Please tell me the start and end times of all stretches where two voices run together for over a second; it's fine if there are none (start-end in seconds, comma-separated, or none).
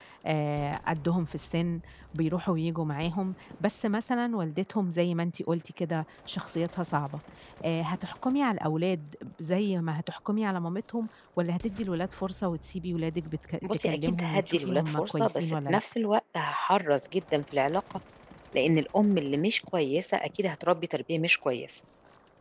13.6-15.8